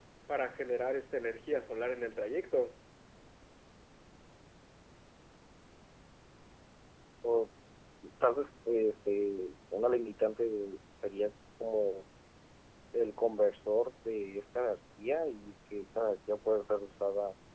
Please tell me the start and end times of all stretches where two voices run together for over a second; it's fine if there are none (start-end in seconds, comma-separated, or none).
none